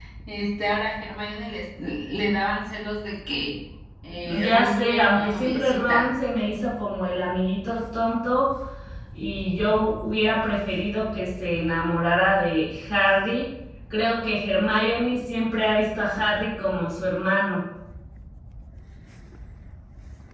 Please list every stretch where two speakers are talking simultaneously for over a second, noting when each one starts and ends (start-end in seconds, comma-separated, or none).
4.2-6.1